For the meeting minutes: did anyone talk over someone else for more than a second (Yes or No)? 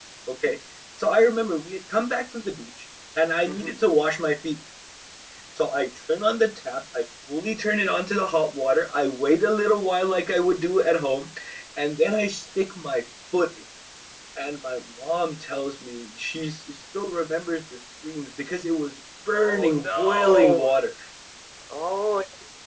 Yes